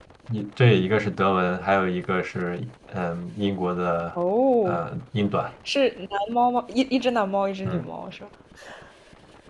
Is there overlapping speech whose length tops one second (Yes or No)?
No